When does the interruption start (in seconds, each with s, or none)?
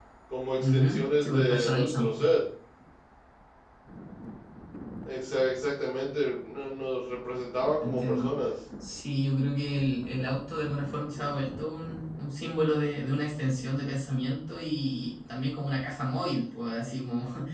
0.6 s